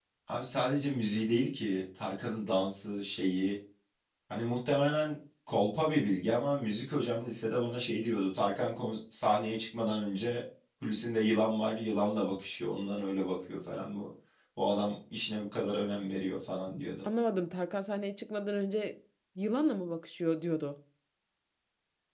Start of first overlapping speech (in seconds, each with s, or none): none